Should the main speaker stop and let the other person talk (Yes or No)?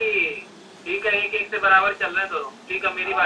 Yes